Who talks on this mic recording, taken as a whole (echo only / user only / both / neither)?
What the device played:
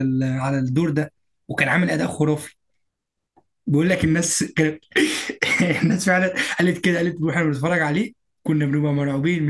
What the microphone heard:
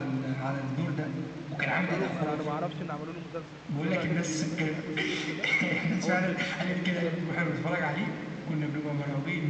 both